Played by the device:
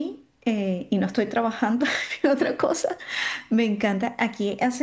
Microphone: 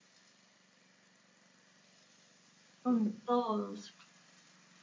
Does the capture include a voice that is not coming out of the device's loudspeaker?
Yes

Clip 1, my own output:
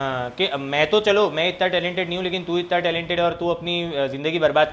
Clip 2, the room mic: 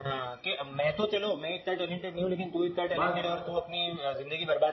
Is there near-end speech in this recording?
Yes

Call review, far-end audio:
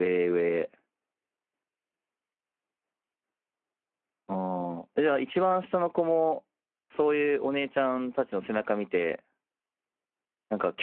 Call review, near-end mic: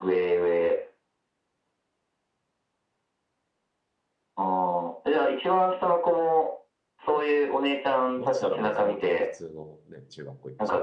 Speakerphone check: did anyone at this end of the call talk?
Yes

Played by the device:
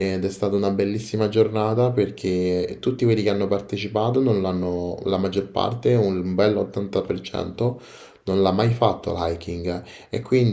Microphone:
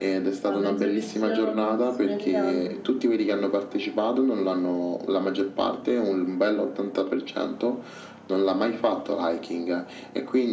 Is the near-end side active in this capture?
Yes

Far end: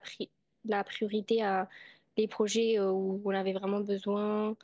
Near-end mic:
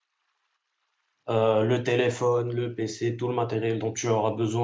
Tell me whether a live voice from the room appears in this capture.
Yes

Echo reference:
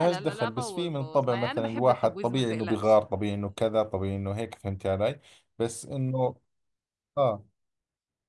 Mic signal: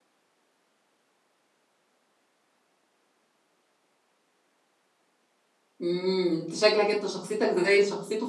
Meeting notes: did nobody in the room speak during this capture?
No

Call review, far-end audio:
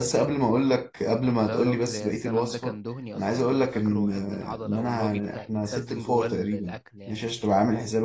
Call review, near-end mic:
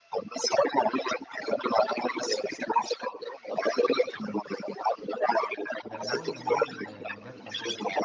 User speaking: Yes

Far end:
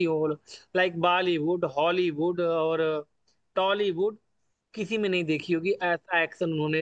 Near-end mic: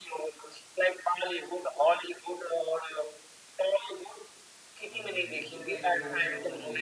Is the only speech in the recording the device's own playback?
No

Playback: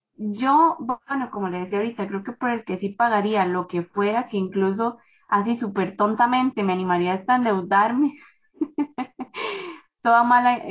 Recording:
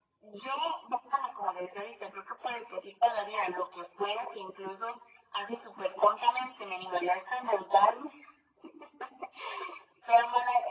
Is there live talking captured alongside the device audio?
No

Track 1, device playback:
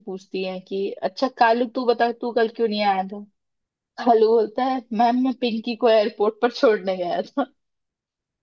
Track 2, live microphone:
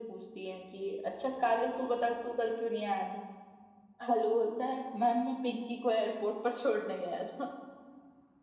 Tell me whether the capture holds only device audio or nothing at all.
Yes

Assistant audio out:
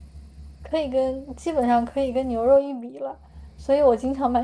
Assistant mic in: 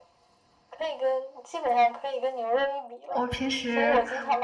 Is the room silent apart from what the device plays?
No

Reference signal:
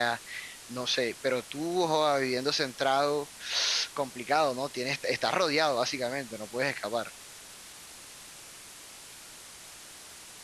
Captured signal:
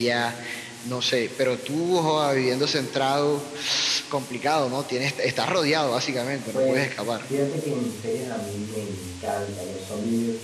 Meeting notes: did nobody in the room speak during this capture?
No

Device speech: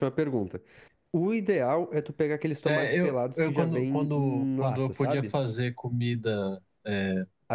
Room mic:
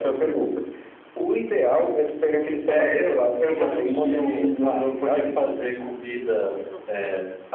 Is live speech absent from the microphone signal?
No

